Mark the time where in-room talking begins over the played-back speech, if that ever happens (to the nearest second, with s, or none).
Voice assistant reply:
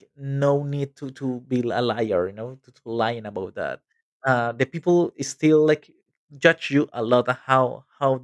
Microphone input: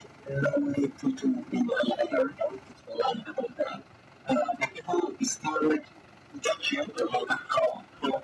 none